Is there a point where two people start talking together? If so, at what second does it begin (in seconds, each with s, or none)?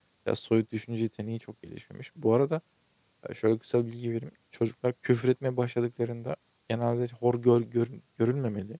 none